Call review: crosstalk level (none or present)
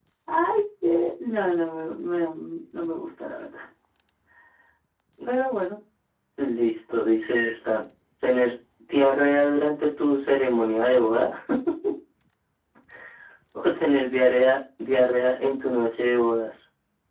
none